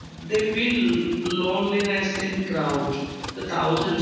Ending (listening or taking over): listening